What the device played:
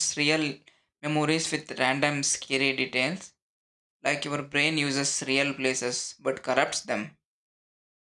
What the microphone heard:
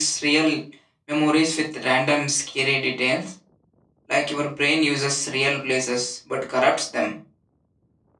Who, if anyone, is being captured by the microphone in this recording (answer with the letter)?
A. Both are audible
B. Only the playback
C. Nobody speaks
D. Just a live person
B